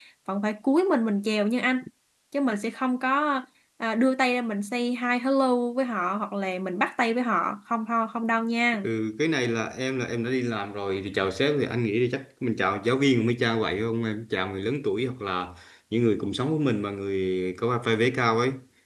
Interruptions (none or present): none